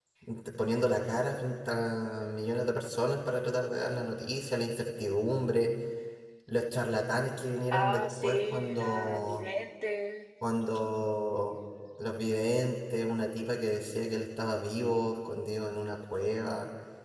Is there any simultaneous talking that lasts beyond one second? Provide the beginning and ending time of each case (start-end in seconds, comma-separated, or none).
7.7-9.4